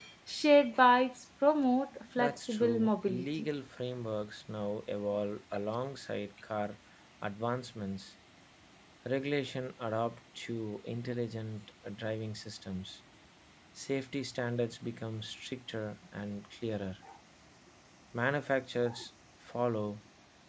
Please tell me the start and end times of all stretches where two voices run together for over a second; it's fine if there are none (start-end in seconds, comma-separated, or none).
2.2-3.5